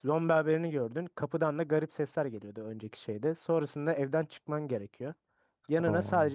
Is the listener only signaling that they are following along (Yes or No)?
Yes